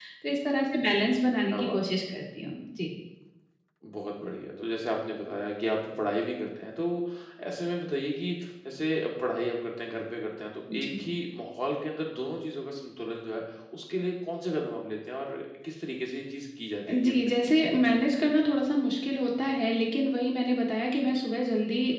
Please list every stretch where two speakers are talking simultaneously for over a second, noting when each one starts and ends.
none

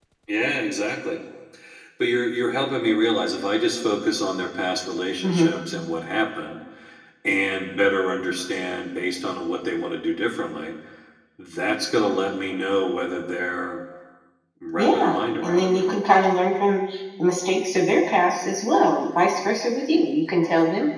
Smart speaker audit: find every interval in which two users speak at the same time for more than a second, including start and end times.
14.8-16.0

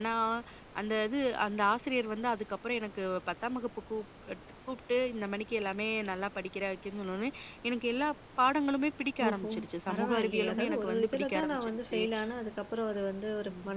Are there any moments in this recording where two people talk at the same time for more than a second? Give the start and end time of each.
9.9-12.0

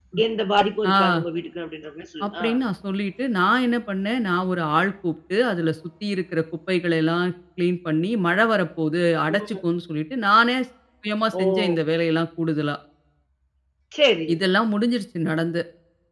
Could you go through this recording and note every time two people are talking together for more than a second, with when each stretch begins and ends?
none

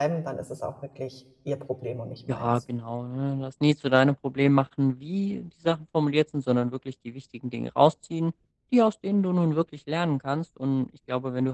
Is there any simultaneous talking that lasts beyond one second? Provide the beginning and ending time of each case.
none

